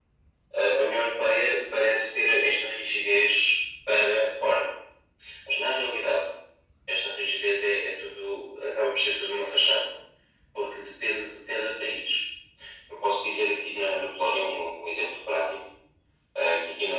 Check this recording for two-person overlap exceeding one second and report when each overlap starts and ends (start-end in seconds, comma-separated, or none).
none